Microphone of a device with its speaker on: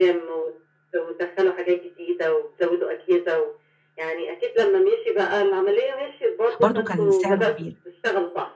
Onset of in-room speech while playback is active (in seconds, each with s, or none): 6.6 s